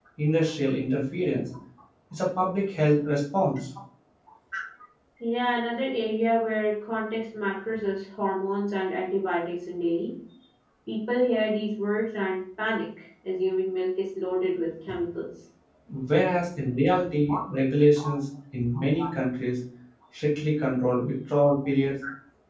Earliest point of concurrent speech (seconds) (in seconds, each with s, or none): none